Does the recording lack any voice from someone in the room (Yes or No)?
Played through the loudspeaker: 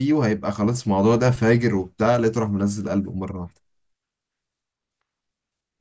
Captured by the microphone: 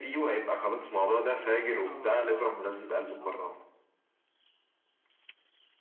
No